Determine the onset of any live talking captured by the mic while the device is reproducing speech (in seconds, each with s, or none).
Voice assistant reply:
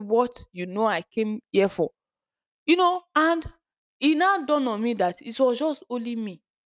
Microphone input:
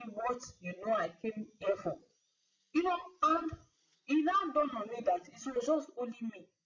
none